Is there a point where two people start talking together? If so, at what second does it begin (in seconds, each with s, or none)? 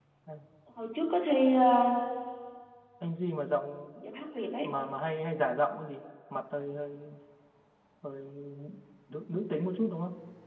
none